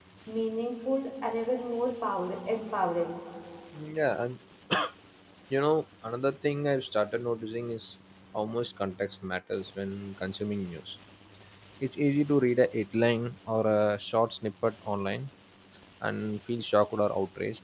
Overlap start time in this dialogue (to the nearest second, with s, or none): none